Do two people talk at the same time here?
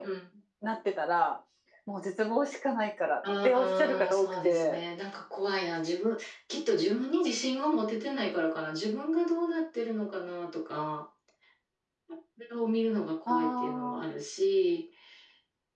Yes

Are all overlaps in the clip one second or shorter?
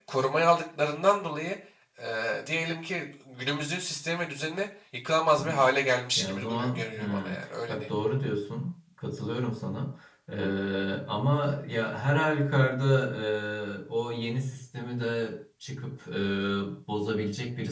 No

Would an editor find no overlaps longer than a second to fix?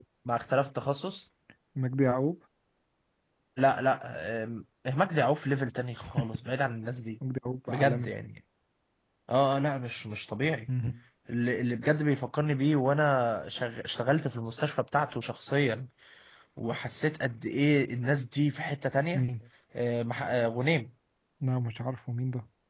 Yes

